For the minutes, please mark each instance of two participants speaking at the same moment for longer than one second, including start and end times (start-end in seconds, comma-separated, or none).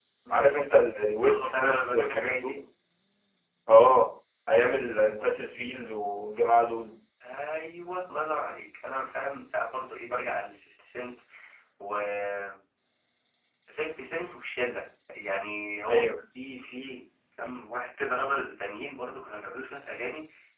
1.2-2.6